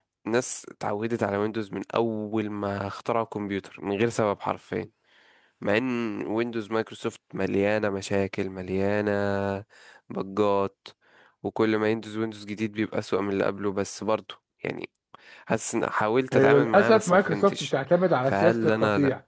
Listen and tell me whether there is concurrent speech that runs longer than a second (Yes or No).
Yes